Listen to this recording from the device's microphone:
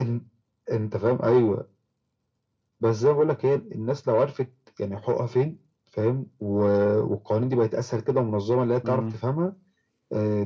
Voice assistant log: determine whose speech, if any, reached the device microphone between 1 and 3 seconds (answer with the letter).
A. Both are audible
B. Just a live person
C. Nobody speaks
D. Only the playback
D